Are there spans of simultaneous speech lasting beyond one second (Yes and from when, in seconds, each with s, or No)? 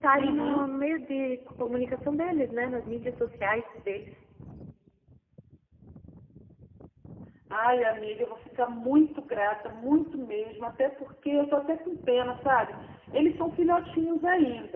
No